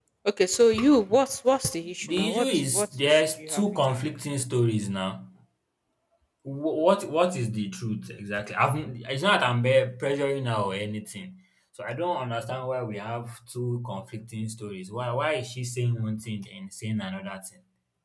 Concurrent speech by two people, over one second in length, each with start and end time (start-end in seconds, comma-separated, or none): 2.0-4.0